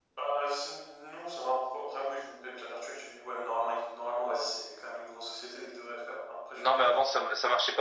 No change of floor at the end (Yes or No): No